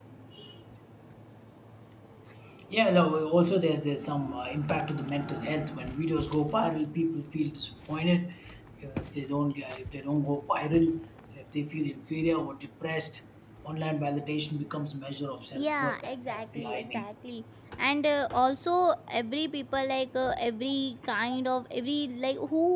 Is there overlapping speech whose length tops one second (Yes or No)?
Yes